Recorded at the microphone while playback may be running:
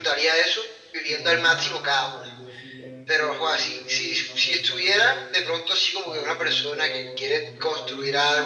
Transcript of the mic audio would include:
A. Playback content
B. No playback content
A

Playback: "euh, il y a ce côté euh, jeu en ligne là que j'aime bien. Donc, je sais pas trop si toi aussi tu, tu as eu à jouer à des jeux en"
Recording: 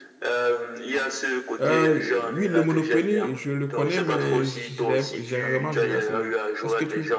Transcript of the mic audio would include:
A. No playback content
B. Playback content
B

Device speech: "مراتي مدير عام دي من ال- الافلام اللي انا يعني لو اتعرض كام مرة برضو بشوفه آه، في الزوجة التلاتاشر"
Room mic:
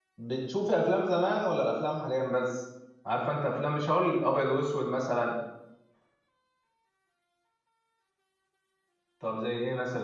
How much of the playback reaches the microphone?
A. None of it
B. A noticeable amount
A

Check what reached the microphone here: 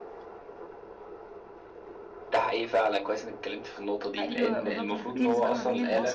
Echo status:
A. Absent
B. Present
B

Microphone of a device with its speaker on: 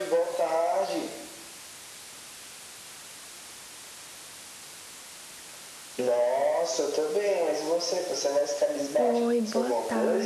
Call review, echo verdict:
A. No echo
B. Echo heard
B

